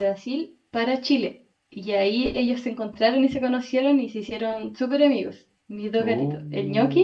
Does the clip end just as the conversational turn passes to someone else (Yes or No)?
No